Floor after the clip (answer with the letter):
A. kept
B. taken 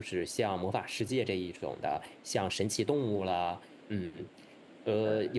A